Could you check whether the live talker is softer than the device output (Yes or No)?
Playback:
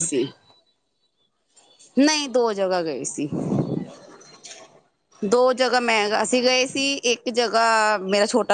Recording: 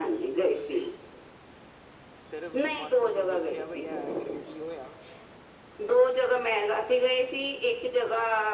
Yes